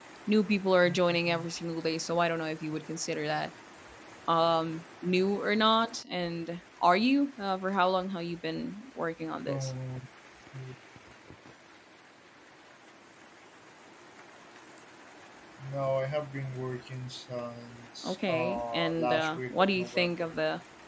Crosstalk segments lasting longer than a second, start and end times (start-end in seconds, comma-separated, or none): 18.0-20.4